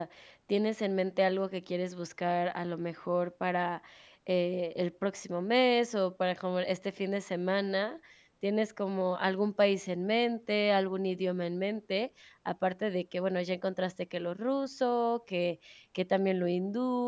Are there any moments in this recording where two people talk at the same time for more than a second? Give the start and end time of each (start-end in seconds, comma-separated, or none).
none